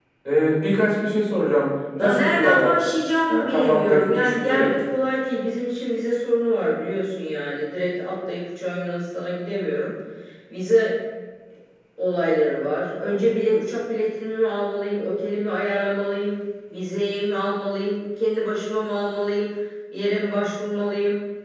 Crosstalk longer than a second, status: present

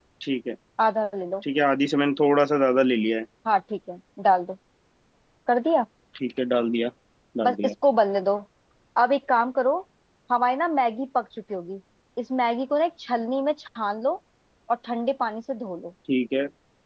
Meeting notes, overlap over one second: none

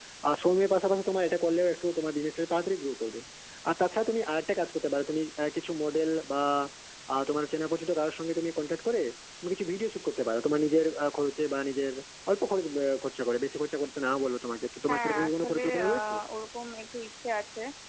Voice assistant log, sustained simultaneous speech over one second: present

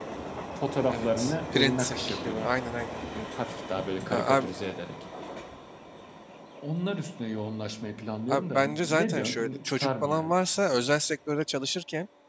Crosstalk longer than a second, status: present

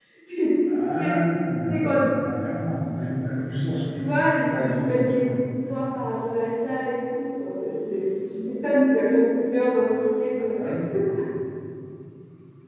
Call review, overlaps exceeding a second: present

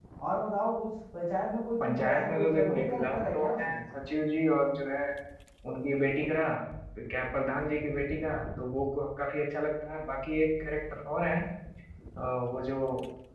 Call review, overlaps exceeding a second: present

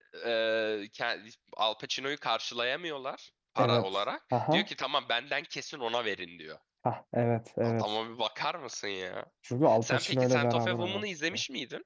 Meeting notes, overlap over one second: present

